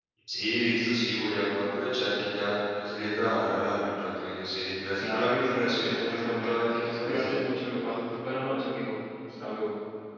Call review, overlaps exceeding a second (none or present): present